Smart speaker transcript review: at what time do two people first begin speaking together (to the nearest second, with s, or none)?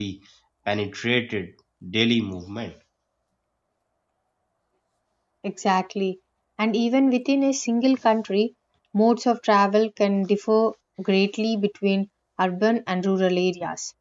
none